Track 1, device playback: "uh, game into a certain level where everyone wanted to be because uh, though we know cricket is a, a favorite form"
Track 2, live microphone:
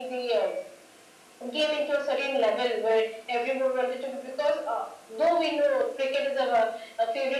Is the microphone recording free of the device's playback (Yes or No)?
No